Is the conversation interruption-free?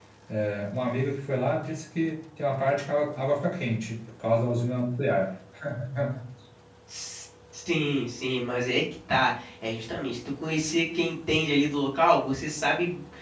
Yes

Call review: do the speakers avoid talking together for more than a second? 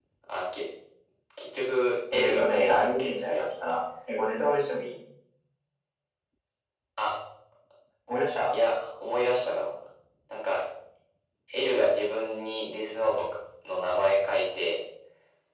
No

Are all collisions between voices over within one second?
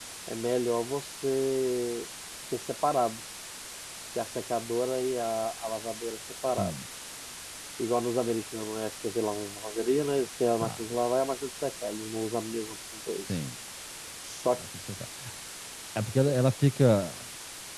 Yes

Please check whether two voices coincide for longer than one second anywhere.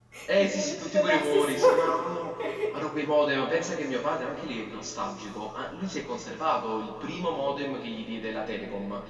Yes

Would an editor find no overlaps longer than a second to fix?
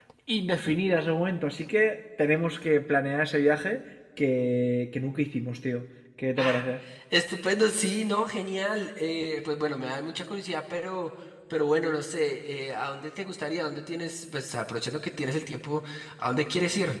Yes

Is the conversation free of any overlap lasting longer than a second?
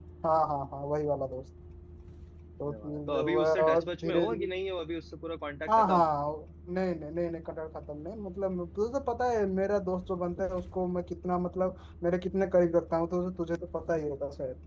No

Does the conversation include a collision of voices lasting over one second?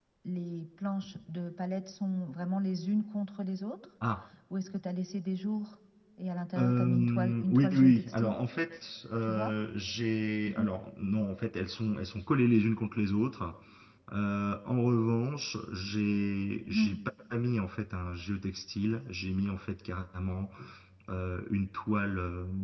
Yes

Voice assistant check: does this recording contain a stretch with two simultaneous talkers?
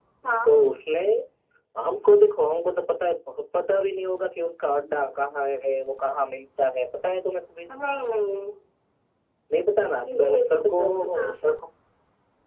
Yes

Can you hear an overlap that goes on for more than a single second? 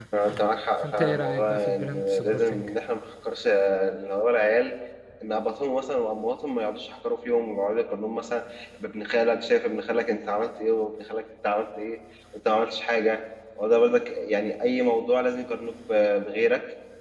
Yes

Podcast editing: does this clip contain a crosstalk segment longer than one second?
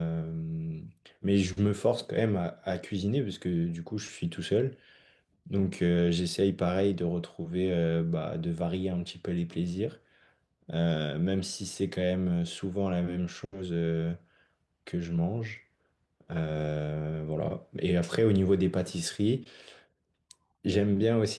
No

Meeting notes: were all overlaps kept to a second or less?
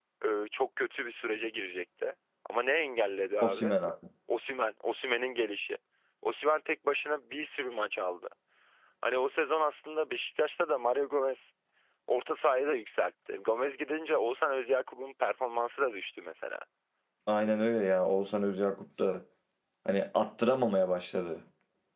Yes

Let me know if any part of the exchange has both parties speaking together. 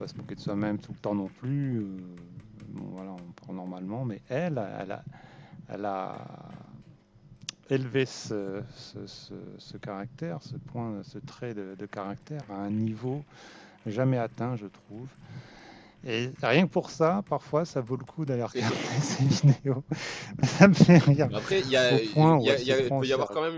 Yes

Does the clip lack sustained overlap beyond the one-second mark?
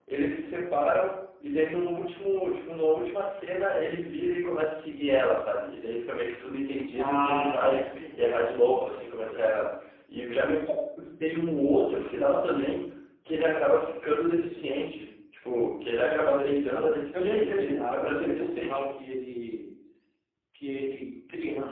No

